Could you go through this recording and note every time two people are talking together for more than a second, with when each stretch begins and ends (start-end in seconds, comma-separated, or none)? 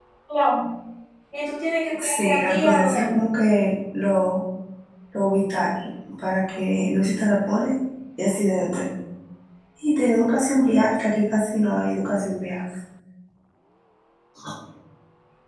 2.0-3.2